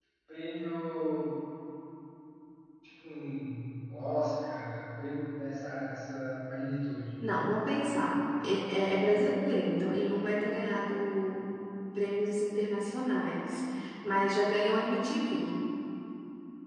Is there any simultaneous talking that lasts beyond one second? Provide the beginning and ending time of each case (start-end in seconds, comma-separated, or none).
none